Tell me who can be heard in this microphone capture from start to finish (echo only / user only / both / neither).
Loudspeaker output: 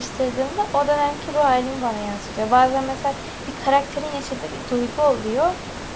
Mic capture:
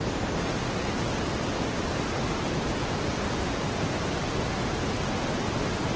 neither